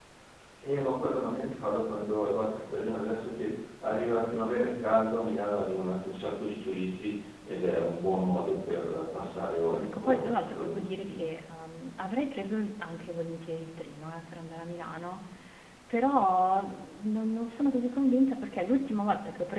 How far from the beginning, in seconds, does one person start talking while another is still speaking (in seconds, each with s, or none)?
9.7 s